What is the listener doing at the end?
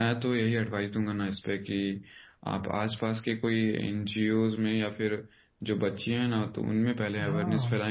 listening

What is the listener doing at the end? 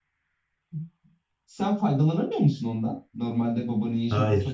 taking over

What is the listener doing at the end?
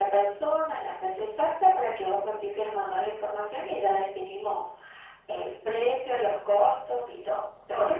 taking over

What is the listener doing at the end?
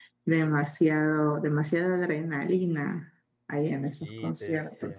taking over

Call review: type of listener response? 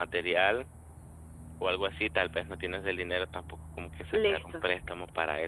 listening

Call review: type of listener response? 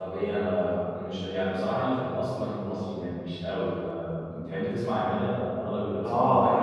taking over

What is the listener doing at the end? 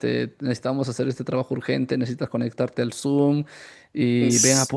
listening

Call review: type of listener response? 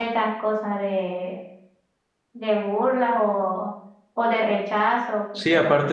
taking over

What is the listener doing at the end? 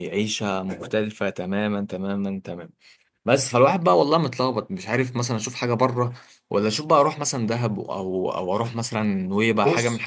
taking over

